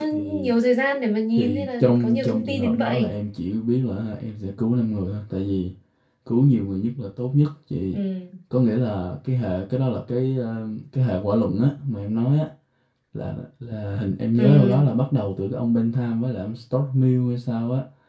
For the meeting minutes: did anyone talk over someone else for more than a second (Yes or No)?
Yes